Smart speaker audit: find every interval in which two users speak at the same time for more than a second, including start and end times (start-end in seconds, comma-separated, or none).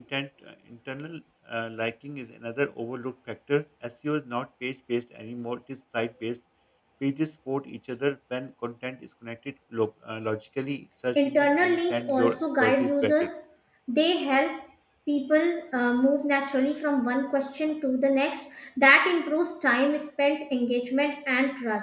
11.2-13.1